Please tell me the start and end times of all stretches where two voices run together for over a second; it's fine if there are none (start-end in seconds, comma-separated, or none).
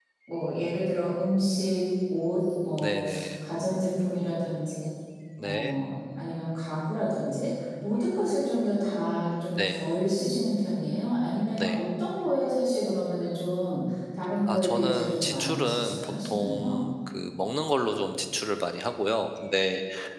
14.5-16.9